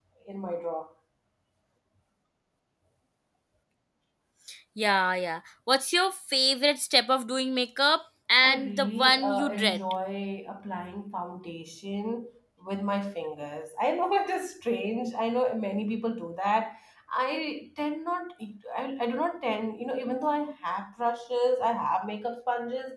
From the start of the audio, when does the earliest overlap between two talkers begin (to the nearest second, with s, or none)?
8 s